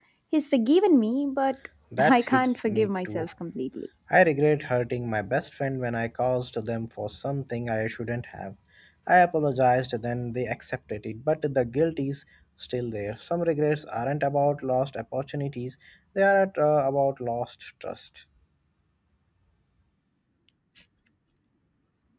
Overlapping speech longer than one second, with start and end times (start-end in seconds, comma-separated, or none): 2.0-3.3